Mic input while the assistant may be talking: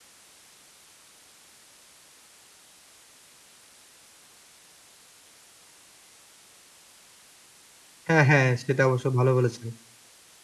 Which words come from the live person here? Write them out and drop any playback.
হ্যাঁ, হ্যাঁ। সেটা অবশ্য ভালো বলেছেন।

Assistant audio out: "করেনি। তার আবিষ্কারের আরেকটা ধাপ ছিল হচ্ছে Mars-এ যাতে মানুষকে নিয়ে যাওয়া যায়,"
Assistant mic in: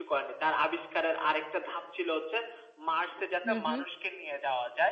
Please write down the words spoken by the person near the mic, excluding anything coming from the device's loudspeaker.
হুম, হুম।

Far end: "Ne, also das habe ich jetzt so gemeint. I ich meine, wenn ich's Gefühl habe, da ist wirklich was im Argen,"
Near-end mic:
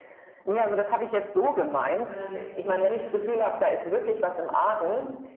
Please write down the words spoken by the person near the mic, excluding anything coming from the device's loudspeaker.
Macht Sinn. Mhm.

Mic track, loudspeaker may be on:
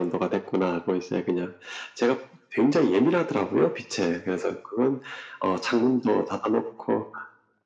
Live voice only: none

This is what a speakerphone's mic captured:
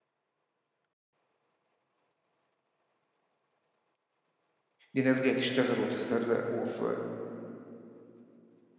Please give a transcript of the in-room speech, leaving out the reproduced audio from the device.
دي ناس جاية تشتغل وتسترزق، وف

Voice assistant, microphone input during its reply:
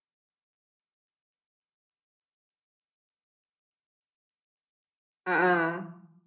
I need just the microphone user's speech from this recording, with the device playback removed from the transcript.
Heeh.

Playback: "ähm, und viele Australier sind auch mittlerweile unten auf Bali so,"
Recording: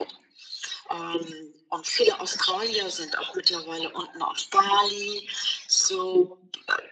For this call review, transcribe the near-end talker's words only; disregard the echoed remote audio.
none

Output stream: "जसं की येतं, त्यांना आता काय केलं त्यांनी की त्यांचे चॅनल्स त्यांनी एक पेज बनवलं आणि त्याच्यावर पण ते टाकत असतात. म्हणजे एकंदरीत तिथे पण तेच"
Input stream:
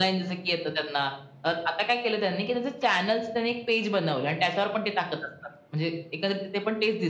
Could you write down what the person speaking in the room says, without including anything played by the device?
none

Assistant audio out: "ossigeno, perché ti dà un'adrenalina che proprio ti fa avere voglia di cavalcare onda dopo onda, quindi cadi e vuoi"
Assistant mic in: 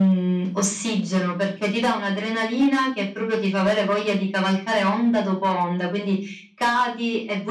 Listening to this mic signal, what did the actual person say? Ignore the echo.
none

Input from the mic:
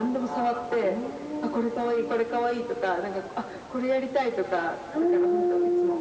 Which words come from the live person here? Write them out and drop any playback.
none

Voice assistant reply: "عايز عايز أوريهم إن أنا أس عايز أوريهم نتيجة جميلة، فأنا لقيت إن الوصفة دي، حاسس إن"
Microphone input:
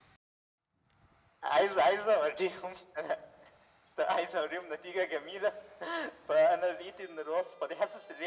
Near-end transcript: none

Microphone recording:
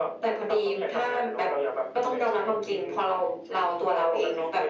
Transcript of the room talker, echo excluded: none

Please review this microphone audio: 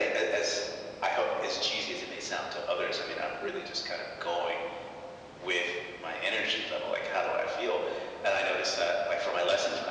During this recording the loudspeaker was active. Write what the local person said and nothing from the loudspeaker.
Mhm.

